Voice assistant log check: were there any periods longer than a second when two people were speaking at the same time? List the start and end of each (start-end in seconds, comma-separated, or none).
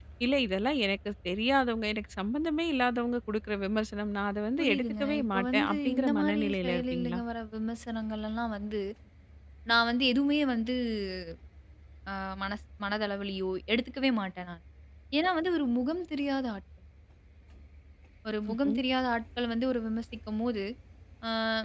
4.6-7.2